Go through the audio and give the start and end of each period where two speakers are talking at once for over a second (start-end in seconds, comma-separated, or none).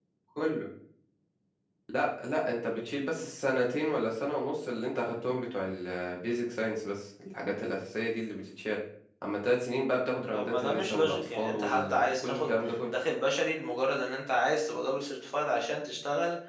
10.3-12.9